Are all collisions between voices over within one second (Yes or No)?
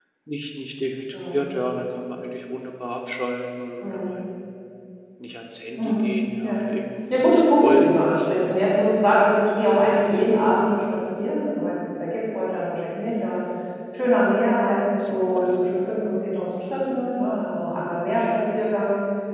No